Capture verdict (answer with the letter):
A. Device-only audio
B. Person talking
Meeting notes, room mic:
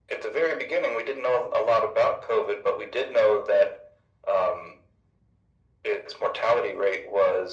A